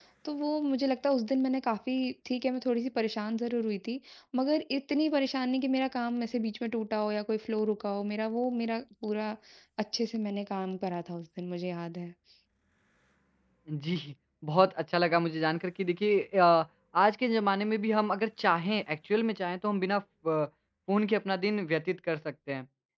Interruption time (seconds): none

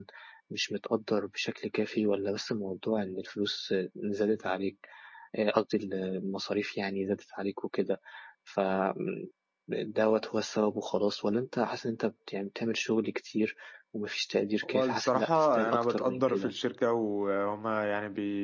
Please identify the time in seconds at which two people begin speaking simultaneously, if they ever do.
14.7 s

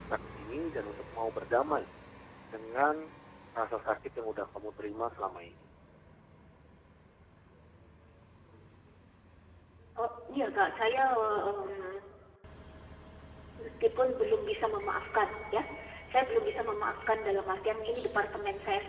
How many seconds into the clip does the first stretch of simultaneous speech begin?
none

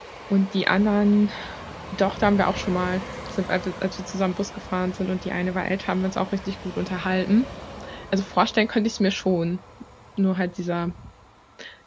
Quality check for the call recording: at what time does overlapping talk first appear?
none

